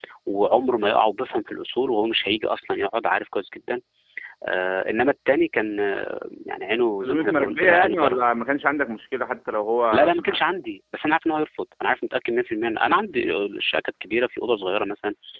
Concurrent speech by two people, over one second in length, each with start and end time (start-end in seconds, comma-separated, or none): 7.0-8.3